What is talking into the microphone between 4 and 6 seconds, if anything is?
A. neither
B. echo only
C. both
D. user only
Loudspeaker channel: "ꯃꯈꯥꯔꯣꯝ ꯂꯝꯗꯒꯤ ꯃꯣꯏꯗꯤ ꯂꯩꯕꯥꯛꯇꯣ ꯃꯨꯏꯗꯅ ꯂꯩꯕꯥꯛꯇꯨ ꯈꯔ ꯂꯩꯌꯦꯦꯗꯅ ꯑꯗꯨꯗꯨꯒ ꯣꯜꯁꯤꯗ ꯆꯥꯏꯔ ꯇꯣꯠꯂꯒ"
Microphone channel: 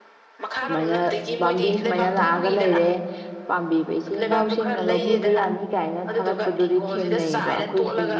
C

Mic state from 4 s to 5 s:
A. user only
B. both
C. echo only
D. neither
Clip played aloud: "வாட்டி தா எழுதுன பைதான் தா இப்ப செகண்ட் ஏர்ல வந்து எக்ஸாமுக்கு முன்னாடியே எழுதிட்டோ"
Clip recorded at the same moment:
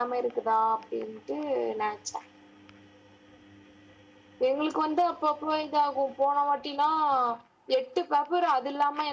A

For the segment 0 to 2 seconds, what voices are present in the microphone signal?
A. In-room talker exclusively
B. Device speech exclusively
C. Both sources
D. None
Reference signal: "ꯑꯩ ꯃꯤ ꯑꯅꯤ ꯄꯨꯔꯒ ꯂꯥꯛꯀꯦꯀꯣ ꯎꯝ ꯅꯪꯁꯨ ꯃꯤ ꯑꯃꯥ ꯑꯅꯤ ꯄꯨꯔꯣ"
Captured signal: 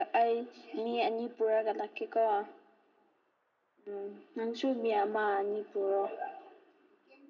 B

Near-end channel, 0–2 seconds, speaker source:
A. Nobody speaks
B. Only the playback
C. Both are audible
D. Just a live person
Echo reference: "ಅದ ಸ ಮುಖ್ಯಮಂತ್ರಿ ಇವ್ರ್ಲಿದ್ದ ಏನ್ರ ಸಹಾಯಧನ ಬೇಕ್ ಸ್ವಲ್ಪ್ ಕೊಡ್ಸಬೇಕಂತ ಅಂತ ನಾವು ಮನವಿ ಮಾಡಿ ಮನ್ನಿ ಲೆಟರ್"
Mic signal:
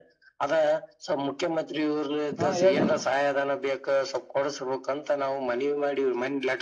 B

